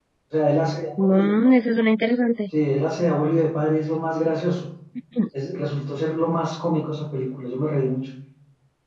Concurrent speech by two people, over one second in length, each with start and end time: none

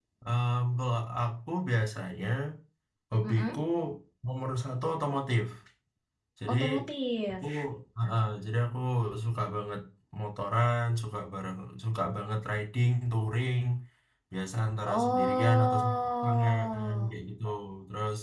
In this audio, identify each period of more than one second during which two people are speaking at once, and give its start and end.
14.9-17.2

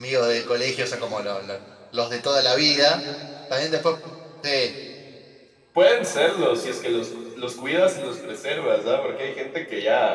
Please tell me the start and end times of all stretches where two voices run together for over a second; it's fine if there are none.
none

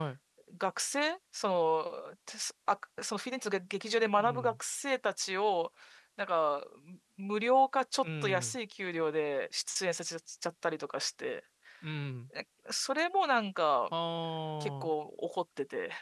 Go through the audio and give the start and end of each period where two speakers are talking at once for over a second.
none

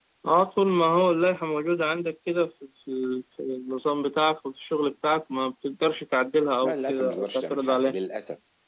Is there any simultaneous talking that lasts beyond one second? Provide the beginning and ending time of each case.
6.6-8.0

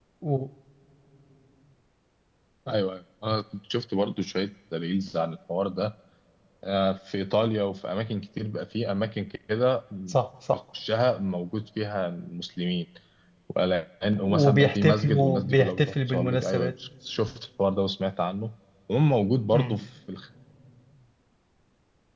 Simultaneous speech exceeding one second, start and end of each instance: 14.2-16.7

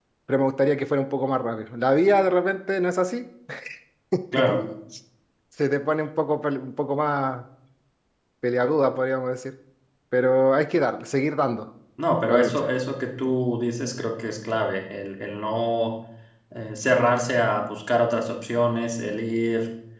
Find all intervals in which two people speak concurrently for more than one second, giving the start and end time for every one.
none

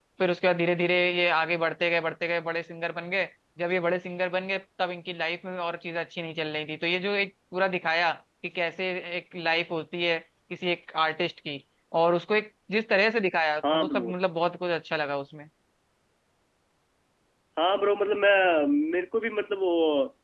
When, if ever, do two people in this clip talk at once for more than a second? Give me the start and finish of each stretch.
none

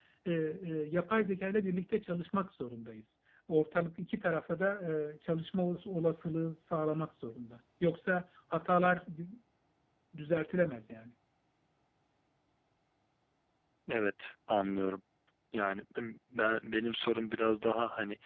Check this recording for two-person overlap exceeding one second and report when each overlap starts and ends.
none

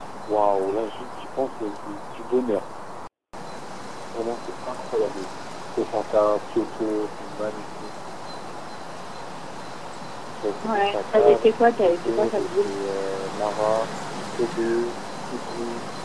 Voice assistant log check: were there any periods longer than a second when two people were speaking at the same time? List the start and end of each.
10.6-12.7

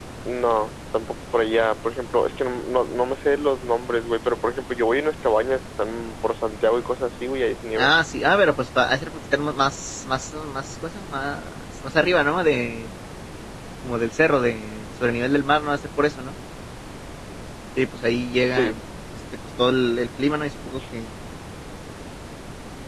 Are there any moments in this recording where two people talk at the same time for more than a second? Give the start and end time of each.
none

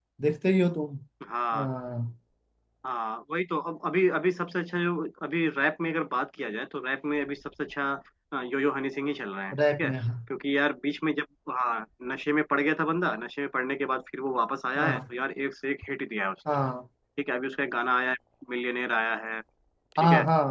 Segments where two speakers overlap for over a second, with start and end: none

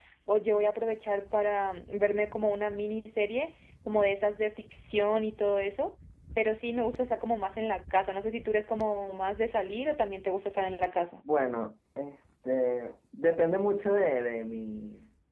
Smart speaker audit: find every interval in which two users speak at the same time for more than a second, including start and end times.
none

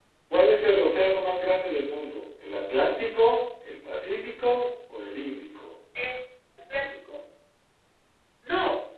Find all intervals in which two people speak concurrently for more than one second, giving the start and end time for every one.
none

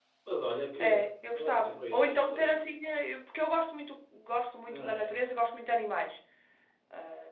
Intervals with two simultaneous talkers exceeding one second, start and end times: 1.0-2.6

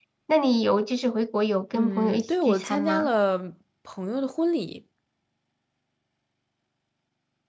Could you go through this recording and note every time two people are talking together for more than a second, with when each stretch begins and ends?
1.7-3.1

